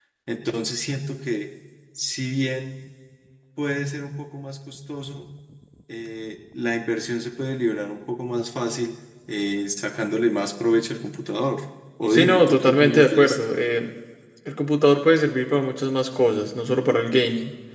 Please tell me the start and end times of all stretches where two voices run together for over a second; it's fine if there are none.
12.1-13.4

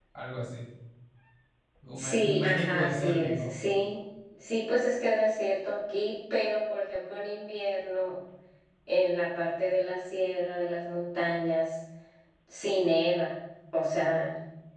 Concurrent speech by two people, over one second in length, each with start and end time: 2.0-3.5

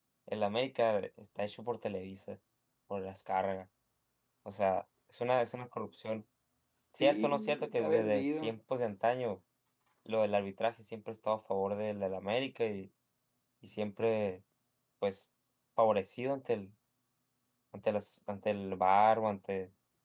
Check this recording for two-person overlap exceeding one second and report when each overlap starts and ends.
7.0-8.5

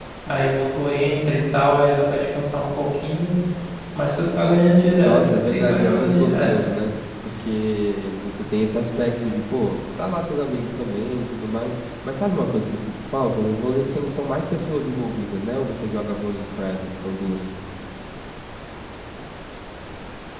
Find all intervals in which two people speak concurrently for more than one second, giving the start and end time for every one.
5.0-6.5

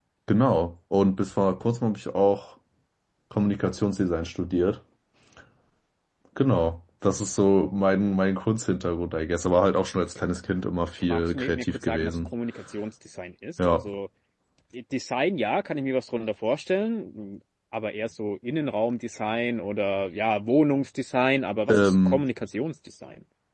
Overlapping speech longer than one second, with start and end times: 11.1-12.3

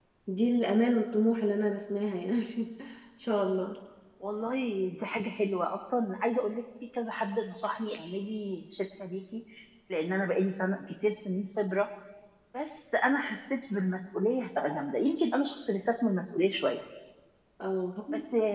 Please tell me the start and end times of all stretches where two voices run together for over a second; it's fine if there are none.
none

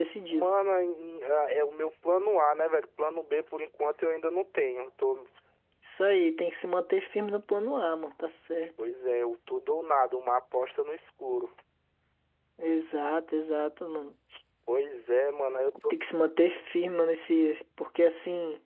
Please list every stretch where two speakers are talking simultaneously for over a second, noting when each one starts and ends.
none

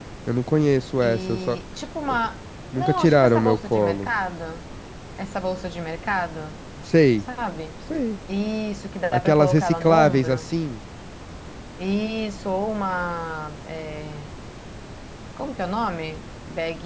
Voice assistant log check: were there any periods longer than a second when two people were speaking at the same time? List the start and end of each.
2.8-4.1, 9.1-10.5

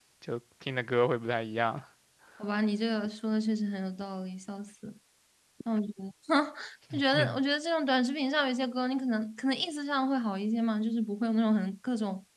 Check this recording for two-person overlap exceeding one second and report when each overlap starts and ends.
none

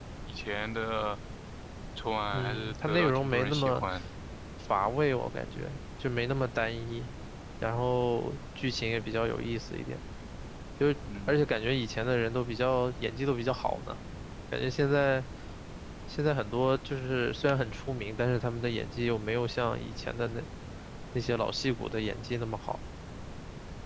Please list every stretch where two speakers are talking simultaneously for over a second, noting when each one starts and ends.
2.3-3.8

